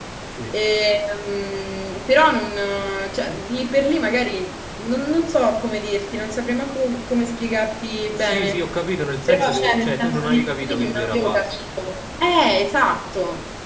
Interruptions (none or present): present